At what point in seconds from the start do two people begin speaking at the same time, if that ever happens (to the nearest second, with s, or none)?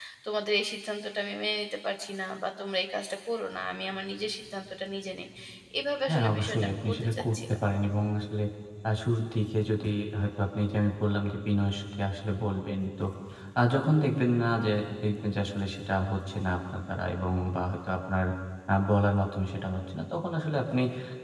6 s